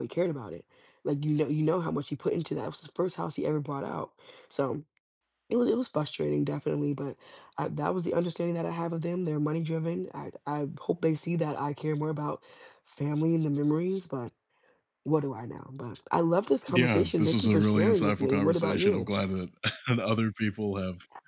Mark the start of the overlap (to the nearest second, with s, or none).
17 s